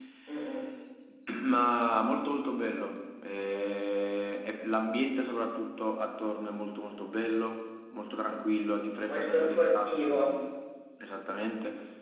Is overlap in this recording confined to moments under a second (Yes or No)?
No